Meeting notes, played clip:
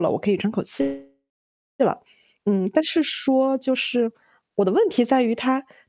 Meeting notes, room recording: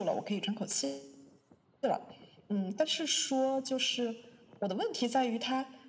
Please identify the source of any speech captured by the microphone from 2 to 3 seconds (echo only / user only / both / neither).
echo only